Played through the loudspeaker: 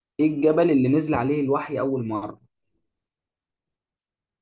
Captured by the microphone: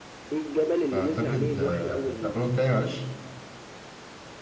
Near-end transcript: أعتقد آه لا قولهم تاني معلش

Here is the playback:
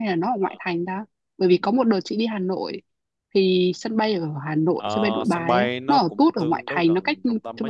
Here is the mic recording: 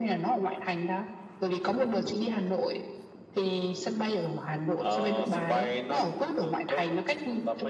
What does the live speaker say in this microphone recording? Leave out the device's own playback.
none

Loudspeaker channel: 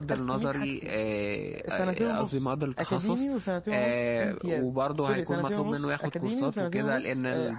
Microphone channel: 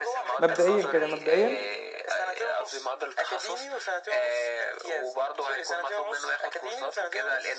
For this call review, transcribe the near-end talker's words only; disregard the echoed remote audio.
مبدئيا كده مبدئيا

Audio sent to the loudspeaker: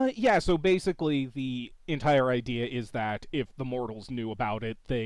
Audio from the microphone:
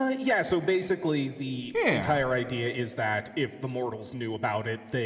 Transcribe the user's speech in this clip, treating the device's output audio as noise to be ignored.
Yeah.

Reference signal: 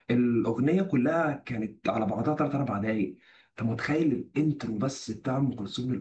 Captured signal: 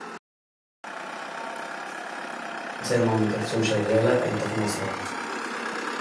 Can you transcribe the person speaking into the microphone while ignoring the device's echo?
سامع ام كلثوم شغالة انت في مصر اهو

